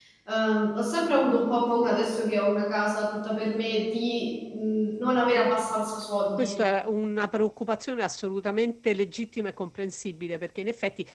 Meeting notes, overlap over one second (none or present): none